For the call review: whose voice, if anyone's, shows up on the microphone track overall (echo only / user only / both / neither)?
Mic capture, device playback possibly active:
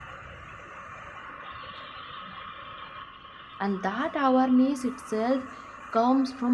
user only